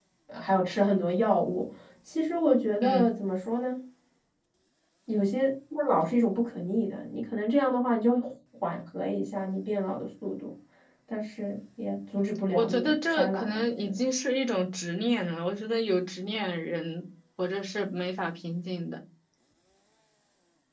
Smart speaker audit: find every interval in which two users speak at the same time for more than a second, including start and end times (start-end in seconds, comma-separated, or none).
12.5-13.9